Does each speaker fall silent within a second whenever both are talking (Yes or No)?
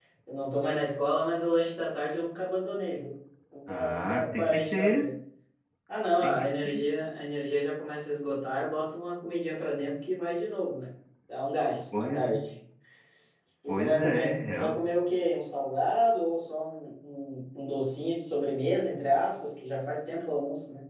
No